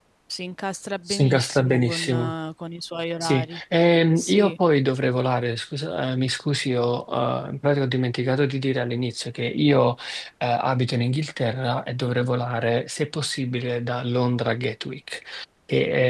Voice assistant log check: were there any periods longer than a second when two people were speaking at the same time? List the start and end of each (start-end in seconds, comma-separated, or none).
1.1-2.3